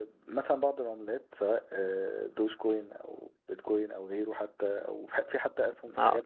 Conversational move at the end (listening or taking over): taking over